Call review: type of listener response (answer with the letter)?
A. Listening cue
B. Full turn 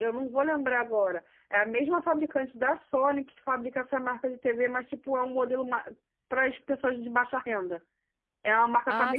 A